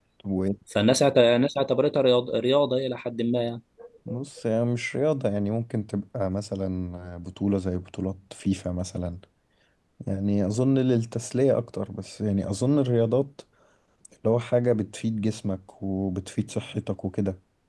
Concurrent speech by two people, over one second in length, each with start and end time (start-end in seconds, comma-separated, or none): none